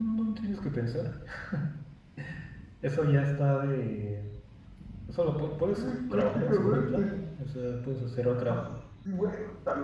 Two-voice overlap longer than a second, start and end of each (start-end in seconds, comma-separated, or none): 5.7-7.1